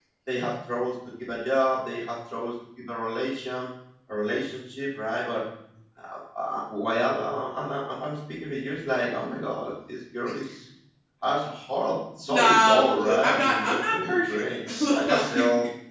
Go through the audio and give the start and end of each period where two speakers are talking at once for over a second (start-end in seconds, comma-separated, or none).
12.3-14.4